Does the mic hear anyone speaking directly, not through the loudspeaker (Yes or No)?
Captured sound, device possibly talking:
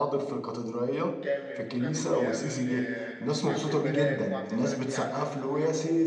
Yes